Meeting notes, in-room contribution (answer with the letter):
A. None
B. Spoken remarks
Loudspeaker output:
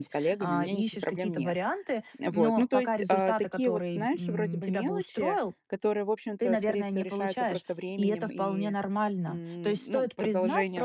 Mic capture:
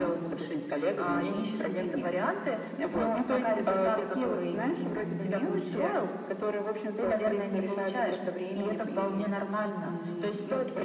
A